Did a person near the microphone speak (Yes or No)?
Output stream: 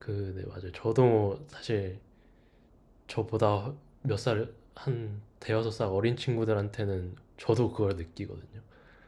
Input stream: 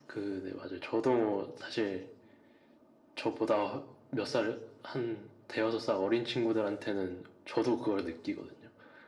No